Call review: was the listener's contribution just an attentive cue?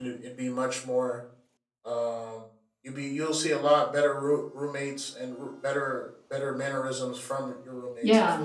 No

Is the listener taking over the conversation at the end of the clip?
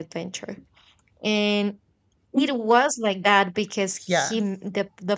No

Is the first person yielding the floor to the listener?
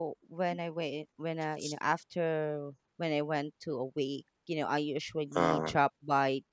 No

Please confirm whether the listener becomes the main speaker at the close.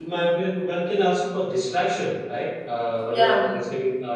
No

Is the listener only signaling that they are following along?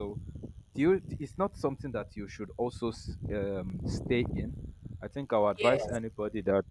Yes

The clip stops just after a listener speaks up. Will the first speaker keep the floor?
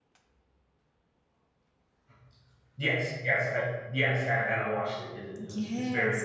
No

